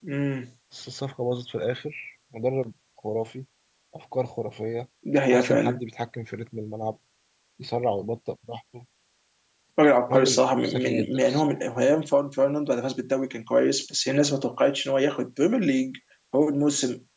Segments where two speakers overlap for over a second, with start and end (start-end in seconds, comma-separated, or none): 10.1-11.6